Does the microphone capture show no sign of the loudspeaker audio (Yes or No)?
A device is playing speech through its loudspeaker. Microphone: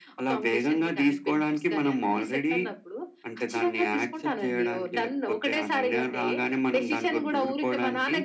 No